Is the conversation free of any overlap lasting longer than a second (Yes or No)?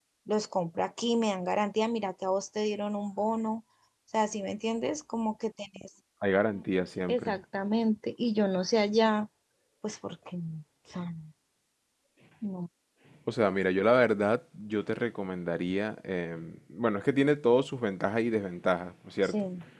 Yes